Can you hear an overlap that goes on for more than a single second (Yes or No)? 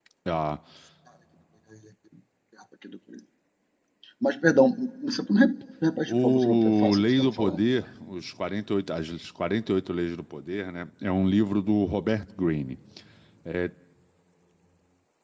Yes